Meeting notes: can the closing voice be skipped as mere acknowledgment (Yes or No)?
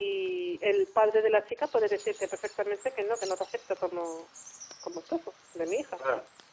No